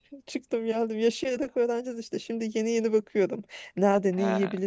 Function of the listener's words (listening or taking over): listening